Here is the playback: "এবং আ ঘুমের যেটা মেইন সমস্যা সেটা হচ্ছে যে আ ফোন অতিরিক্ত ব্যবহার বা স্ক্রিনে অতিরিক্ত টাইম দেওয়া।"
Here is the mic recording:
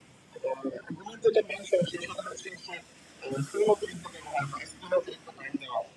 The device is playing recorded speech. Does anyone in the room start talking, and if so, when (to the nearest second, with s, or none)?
none